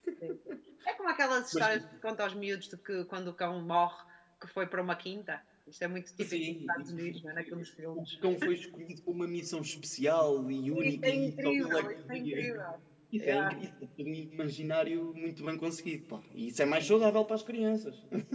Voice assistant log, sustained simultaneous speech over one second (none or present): present